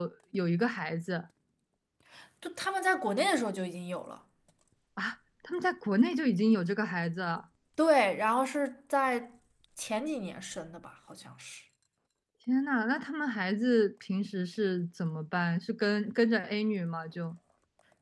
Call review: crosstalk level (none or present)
none